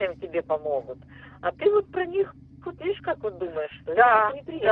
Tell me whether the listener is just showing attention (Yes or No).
No